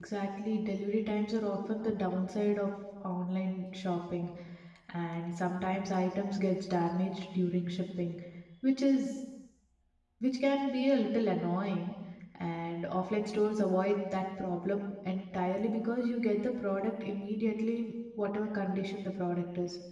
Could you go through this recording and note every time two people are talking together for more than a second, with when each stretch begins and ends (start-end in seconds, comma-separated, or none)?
none